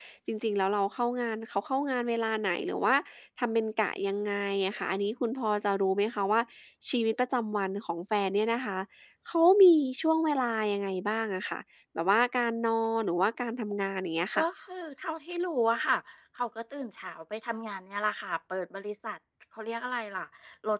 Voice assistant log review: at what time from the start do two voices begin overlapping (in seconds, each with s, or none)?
none